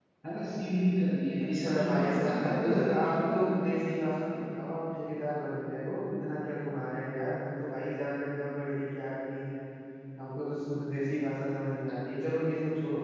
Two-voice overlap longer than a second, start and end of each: 1.4-3.5

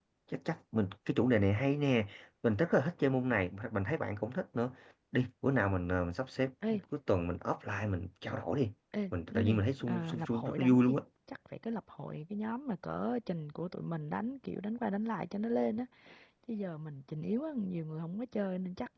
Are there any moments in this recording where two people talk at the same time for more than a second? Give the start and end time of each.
9.3-10.9

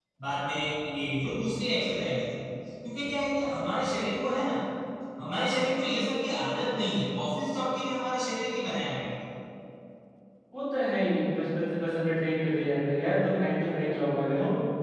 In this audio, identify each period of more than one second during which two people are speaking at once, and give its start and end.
none

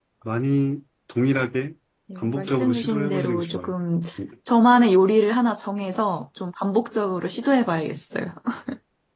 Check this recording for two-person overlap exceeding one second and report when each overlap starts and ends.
2.2-3.7

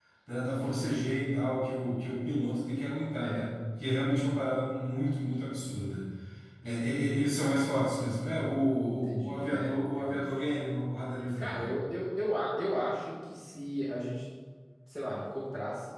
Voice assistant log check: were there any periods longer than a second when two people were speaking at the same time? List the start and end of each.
8.9-10.3

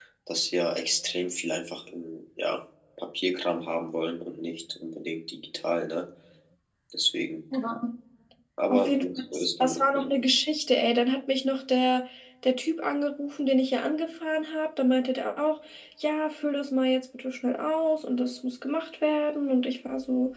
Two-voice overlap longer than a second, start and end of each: 8.7-10.1

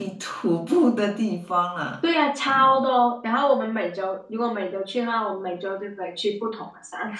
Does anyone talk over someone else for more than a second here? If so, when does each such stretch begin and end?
none

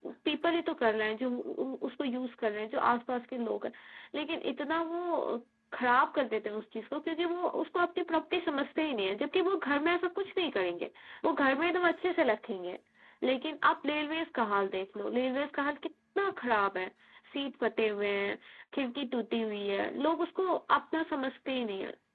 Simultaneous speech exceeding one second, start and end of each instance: none

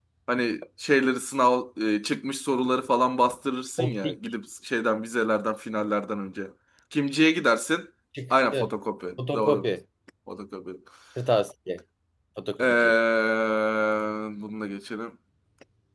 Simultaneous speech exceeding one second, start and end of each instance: none

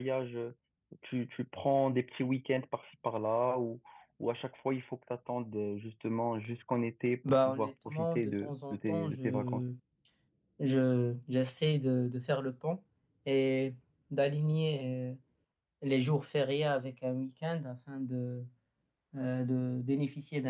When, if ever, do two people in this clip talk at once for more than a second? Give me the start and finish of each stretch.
7.4-9.6

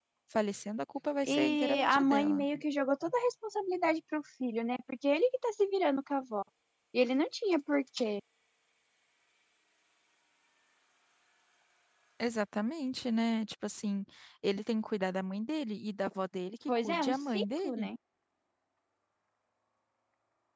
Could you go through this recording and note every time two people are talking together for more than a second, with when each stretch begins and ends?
1.2-2.4, 16.7-17.9

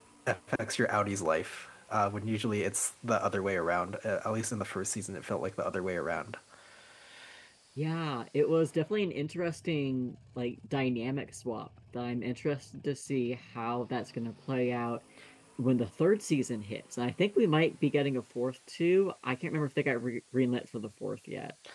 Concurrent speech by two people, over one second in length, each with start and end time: none

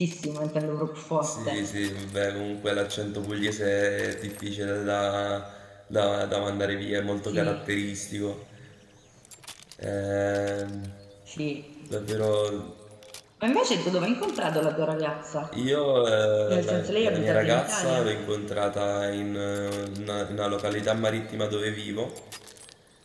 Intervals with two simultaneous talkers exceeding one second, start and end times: 16.5-18.1

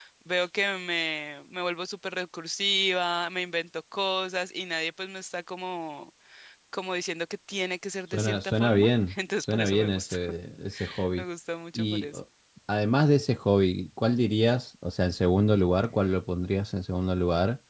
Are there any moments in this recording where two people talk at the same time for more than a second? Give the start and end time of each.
8.1-10.2

